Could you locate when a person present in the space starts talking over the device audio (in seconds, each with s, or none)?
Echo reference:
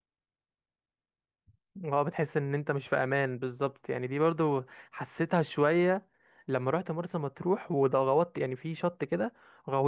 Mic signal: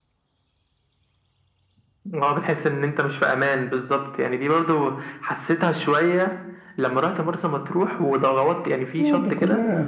9.0 s